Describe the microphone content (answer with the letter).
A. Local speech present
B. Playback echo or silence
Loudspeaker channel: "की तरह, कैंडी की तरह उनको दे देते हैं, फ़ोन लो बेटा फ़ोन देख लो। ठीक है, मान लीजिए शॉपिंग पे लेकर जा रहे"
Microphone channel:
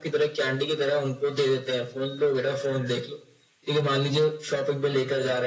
B